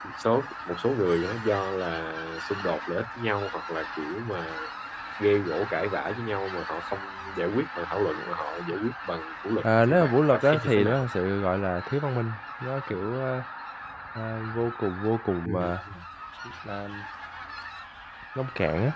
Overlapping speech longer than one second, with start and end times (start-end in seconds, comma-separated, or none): 9.6-11.1